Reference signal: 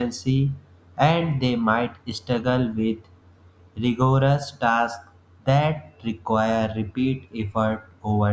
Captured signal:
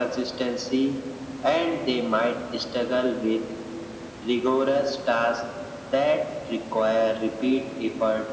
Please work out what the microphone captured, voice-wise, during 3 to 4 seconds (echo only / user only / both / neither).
echo only